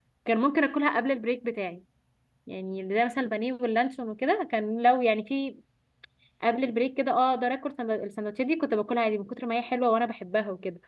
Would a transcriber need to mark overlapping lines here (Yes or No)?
No